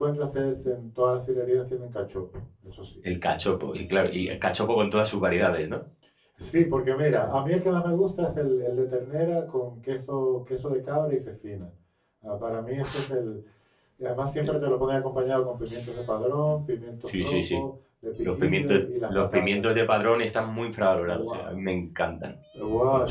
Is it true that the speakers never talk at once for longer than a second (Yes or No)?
No